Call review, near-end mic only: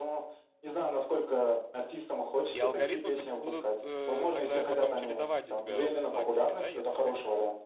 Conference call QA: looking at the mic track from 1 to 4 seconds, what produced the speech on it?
both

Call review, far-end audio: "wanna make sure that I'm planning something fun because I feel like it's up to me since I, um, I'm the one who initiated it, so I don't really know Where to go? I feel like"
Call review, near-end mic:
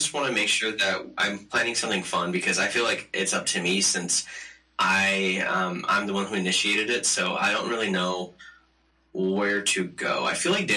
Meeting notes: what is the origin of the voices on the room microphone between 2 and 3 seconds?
echo only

